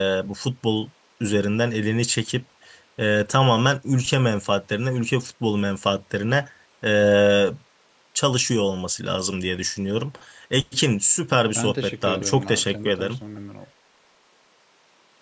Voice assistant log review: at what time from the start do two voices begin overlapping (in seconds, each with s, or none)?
11.6 s